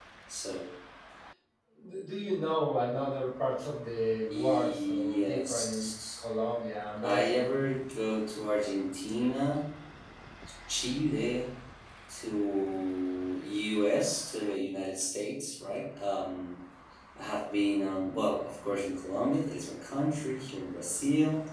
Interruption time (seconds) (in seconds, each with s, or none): 4.3 s